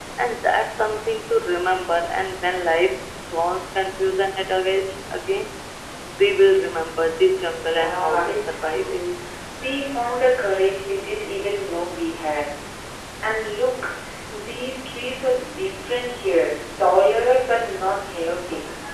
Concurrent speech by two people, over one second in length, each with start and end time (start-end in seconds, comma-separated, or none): 7.6-9.0